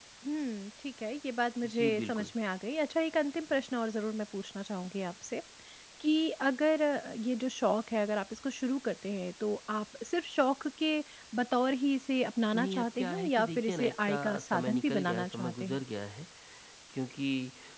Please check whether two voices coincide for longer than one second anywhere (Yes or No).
Yes